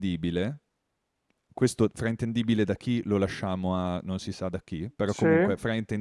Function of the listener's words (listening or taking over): listening